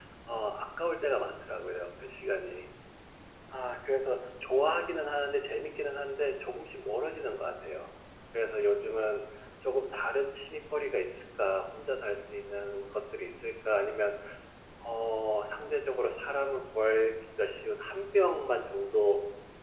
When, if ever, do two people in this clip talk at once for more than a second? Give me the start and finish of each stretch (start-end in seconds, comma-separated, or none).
none